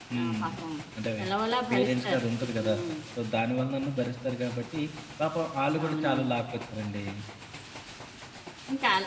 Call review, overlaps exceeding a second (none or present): none